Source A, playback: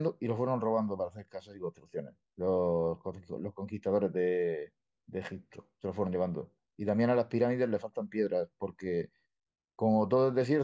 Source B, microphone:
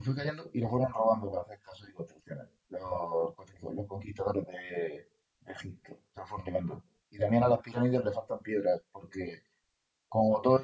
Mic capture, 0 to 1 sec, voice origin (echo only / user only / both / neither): echo only